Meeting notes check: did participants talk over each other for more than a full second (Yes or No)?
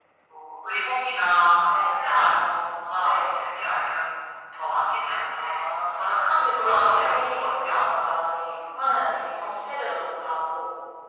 Yes